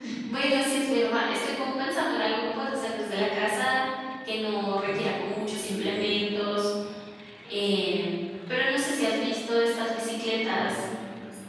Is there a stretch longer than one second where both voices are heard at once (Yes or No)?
No